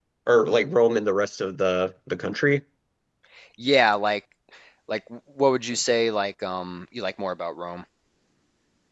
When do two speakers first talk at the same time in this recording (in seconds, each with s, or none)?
none